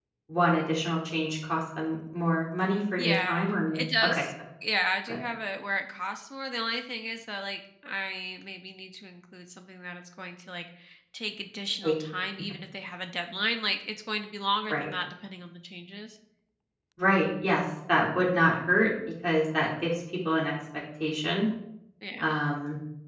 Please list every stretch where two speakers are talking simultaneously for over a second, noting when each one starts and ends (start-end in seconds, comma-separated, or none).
3.0-4.2